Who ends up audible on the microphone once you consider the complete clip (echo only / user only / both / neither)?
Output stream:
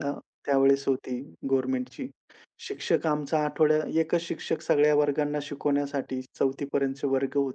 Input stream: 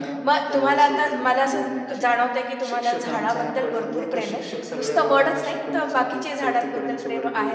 both